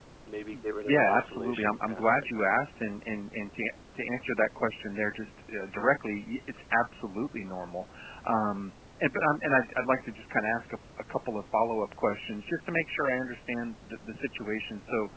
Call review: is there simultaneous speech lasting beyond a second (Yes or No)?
Yes